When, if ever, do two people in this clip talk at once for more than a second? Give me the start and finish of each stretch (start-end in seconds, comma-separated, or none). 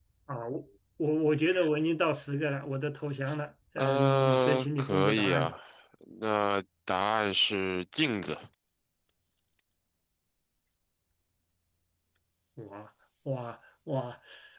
3.8-5.5